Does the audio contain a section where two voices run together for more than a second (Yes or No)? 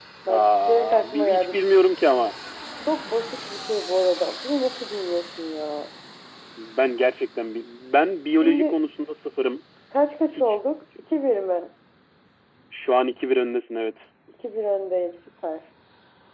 Yes